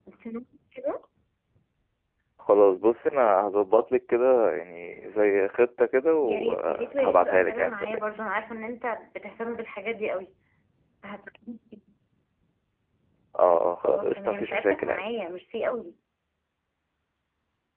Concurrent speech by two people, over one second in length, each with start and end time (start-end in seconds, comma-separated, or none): 6.2-8.1, 13.8-15.1